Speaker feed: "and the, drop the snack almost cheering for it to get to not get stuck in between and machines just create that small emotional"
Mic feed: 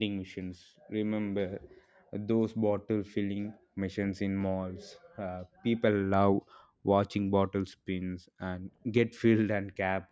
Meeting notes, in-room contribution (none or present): present